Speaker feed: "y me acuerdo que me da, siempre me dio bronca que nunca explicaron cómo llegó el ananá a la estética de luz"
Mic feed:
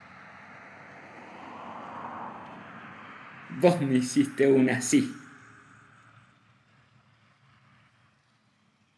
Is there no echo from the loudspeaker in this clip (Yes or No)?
Yes